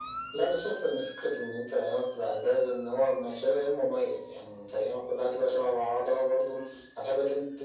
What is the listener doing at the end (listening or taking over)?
listening